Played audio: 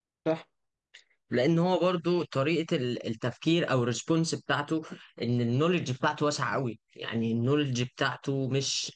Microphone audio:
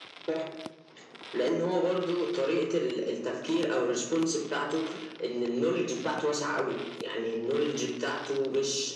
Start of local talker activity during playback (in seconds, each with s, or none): none